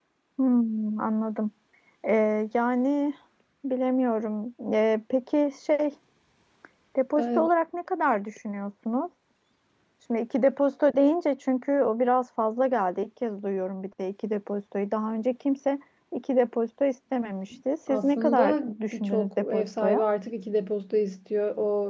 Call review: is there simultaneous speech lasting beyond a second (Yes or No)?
Yes